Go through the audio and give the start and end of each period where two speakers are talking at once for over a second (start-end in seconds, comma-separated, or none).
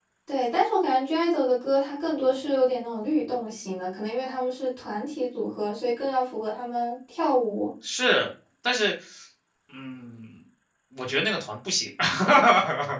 none